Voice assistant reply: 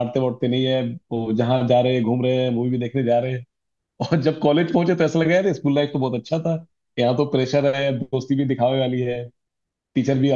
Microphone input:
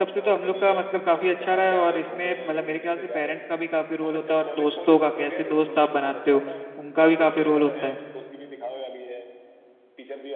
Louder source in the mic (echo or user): user